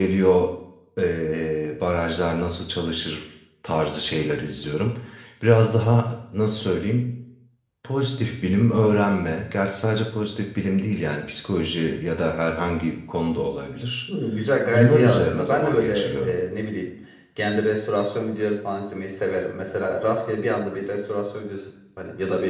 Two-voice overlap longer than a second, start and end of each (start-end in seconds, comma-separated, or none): 14.7-16.4